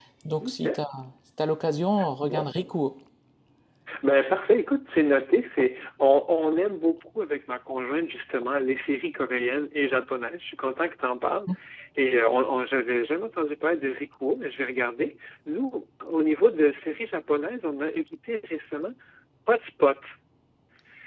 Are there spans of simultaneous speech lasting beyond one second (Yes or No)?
No